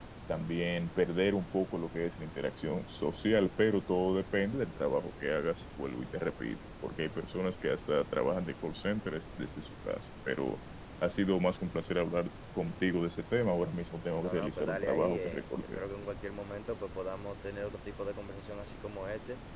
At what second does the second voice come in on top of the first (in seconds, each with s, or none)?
14.2 s